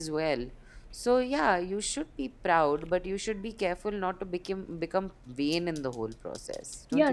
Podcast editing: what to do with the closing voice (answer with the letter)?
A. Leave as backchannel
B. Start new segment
B